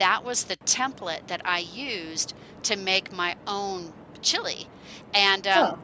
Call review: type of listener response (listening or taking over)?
listening